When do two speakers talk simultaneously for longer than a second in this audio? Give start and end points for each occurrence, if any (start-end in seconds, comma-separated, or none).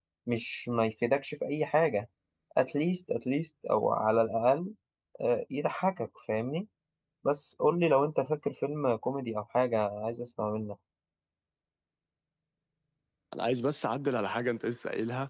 none